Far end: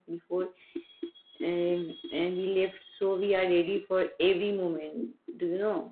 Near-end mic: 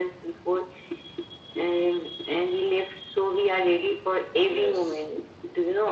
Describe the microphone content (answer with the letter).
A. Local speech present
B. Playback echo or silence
A